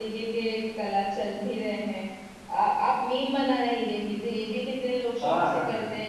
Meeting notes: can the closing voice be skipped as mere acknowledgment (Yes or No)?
Yes